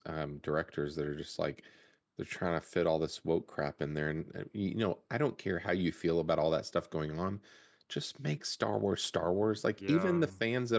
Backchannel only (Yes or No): Yes